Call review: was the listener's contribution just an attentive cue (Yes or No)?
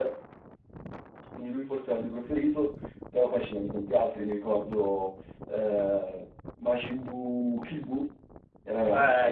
No